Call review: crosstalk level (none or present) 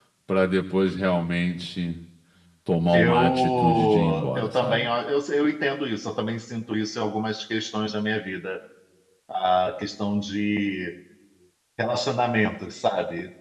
present